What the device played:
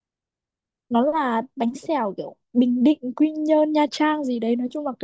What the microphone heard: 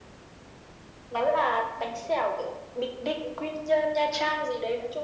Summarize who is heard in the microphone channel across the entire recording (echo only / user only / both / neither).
echo only